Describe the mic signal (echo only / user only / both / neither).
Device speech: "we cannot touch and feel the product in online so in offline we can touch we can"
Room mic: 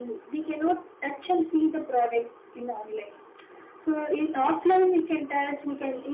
echo only